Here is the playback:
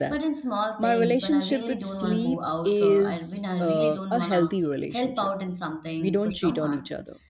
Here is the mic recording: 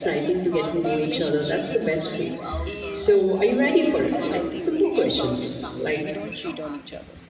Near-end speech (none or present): present